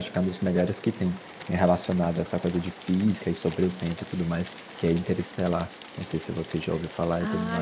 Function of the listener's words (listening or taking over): taking over